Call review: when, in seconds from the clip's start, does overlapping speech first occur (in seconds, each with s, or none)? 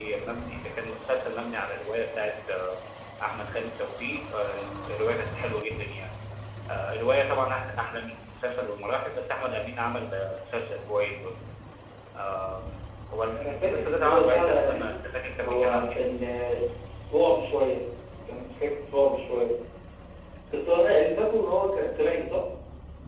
13.3 s